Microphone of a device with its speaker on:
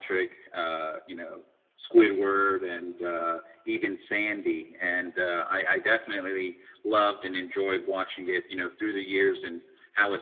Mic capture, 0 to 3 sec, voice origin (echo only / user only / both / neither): echo only